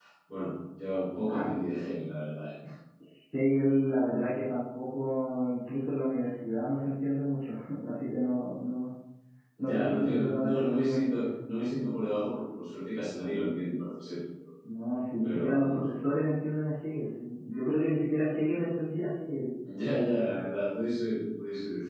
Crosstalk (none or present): present